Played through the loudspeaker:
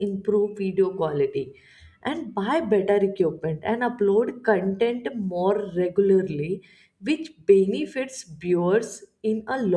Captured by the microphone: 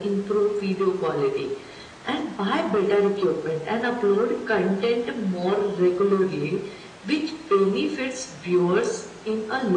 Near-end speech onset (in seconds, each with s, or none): none